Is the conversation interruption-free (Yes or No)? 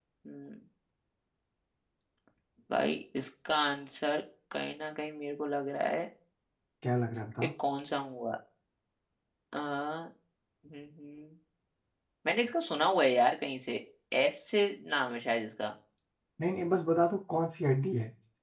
Yes